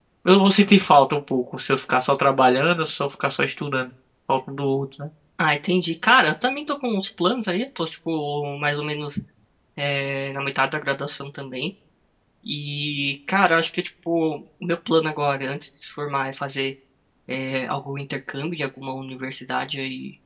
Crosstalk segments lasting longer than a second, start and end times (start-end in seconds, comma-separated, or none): none